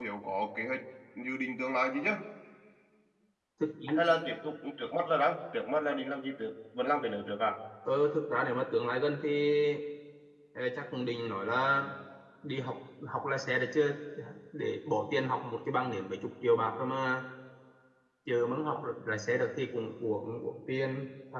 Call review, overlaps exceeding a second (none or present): none